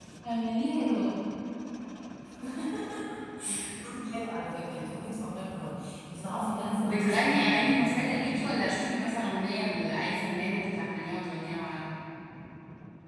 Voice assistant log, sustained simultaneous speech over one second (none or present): present